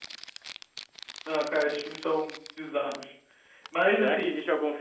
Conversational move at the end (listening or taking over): taking over